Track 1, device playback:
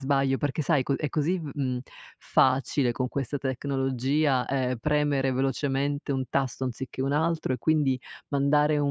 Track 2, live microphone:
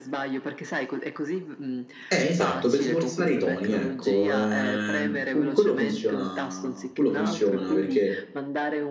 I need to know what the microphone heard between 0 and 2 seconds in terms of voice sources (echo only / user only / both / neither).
echo only